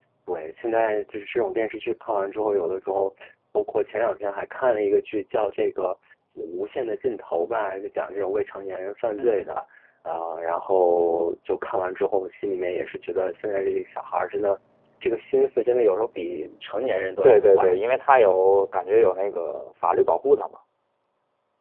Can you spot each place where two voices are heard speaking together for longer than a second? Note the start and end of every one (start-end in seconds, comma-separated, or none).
none